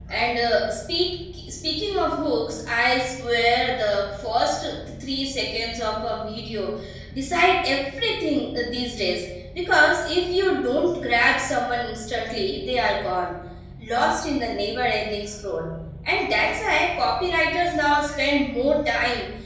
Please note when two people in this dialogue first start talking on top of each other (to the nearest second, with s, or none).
none